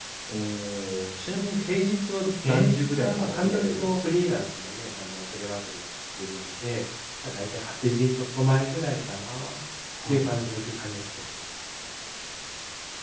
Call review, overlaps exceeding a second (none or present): present